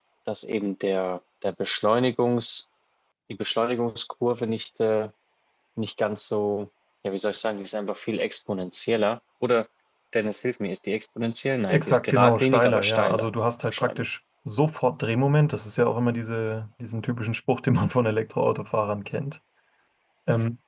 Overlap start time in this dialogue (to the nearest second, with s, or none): 12 s